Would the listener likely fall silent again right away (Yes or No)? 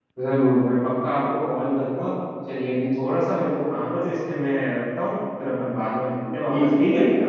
No